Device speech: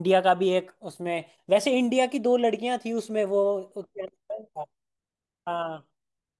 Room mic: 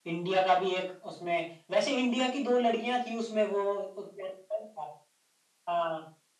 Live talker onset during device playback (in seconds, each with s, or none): none